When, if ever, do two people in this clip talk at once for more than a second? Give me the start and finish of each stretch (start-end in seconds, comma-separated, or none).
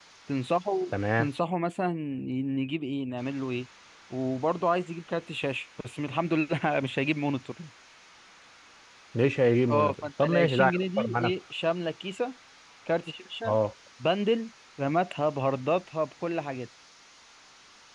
9.7-11.3